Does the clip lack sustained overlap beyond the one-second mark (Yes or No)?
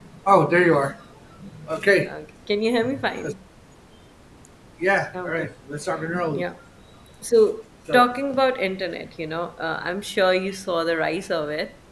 Yes